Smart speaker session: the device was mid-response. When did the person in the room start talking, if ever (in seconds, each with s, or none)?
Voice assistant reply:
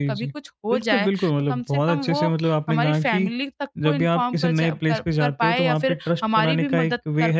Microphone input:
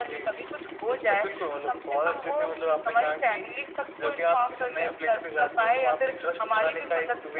none